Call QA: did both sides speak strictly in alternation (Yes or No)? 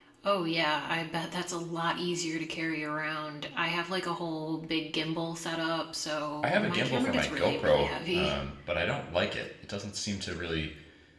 No